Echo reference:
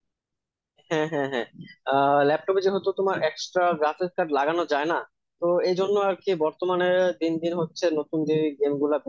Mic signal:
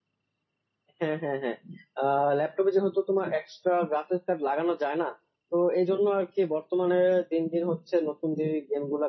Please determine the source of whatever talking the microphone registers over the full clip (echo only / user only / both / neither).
echo only